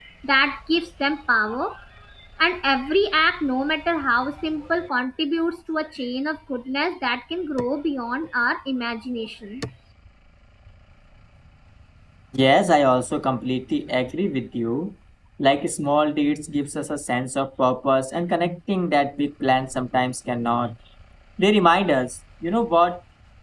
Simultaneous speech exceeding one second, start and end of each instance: none

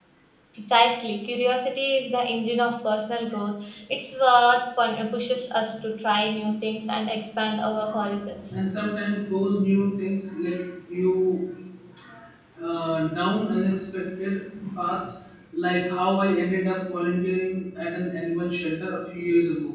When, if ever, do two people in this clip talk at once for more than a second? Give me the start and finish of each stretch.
none

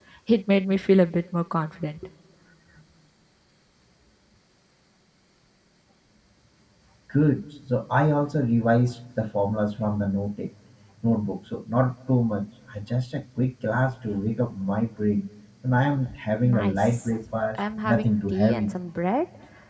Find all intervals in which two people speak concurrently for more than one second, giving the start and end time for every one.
16.4-18.7

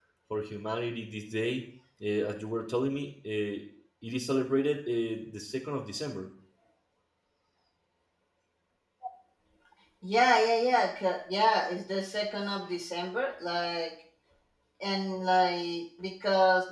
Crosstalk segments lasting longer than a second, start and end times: none

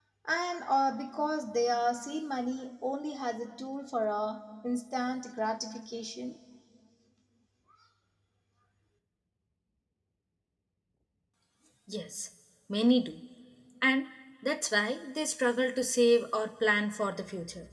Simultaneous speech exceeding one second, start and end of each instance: none

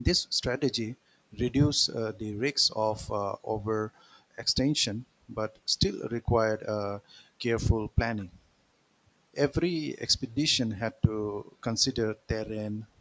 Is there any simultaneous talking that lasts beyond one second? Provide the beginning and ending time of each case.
none

